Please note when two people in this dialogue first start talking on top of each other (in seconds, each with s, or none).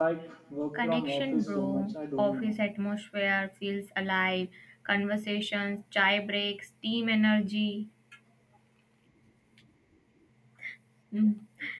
0.8 s